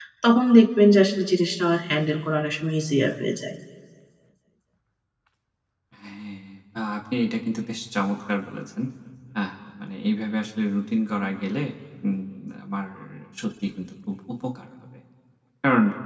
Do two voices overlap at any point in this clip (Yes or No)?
No